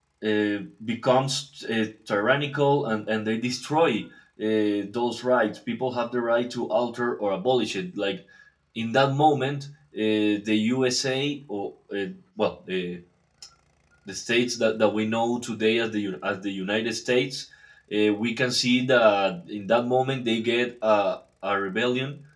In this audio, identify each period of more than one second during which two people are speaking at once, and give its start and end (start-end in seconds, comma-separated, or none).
none